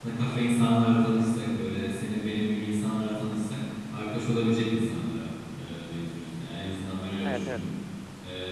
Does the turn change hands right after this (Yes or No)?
No